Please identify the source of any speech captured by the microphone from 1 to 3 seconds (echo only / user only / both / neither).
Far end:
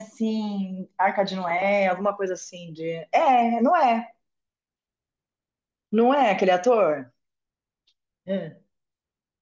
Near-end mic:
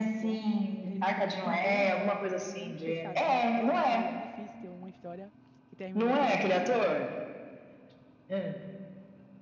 both